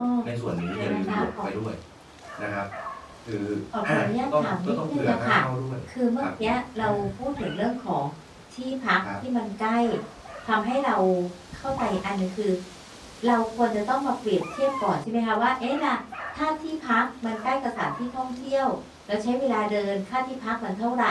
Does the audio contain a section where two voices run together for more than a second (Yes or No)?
Yes